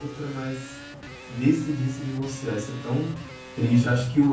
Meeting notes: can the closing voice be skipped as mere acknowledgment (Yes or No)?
Yes